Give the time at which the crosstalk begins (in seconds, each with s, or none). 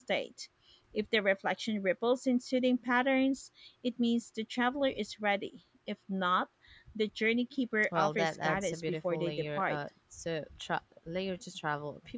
7.9 s